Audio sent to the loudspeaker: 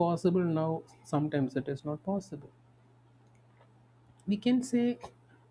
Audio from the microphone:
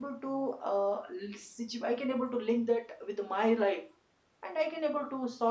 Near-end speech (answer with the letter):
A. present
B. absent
A